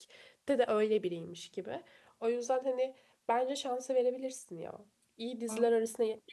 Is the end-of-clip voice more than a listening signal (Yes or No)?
No